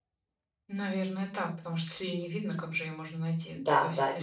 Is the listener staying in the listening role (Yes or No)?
No